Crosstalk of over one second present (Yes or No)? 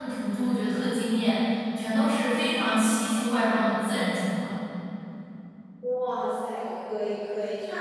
No